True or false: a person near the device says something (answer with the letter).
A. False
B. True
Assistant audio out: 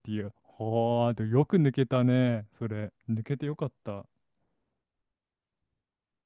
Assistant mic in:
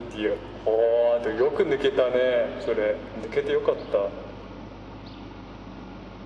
A